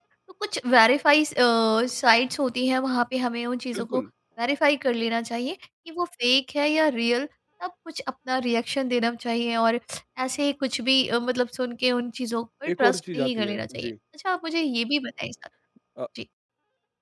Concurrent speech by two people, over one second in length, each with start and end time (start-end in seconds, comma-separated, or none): 12.7-13.9